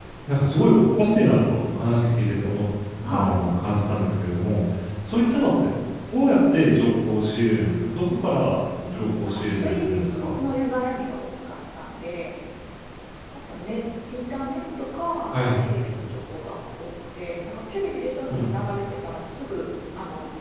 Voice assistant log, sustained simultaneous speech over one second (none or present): present